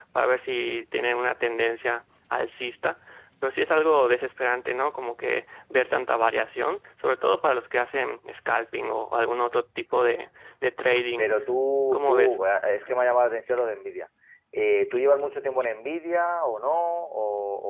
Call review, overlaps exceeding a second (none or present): none